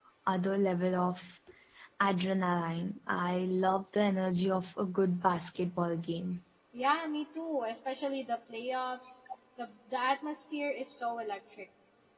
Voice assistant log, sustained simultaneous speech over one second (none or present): none